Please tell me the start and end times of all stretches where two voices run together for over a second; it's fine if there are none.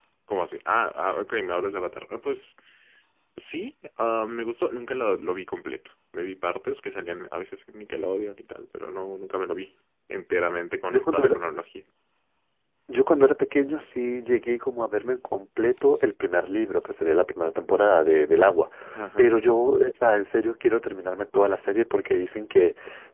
none

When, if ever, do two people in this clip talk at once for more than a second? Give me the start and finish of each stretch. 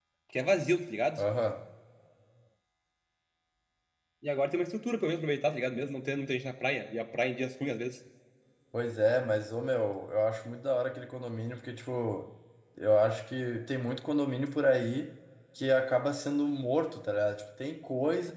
none

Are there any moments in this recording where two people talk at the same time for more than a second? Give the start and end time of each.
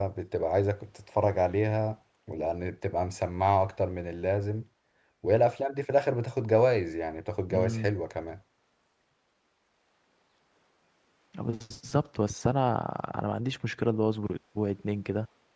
none

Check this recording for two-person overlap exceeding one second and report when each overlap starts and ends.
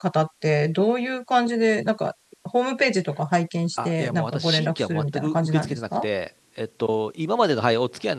3.9-6.1

